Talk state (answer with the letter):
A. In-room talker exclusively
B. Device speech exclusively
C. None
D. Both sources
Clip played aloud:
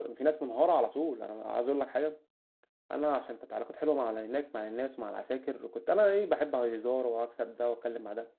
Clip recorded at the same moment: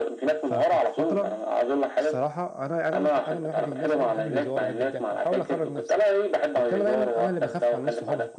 D